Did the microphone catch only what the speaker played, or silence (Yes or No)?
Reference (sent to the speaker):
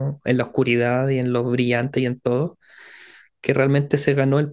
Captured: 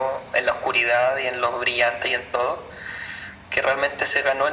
Yes